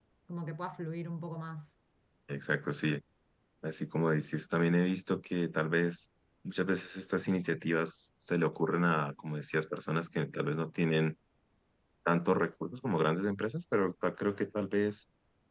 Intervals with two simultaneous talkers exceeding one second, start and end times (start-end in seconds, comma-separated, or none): none